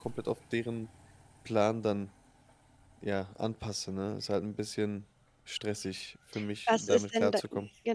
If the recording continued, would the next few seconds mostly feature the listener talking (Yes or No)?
Yes